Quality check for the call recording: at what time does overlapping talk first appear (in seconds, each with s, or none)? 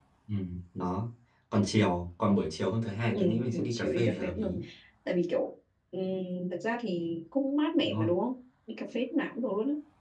3.1 s